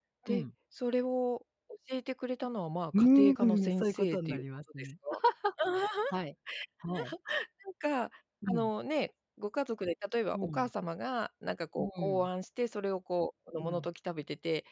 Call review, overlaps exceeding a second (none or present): present